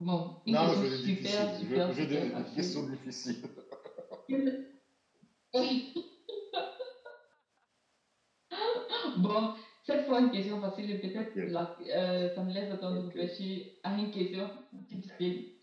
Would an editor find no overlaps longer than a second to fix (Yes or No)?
No